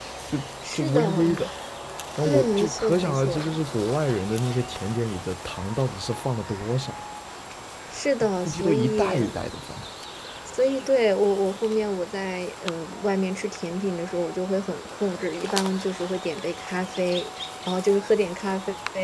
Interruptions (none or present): present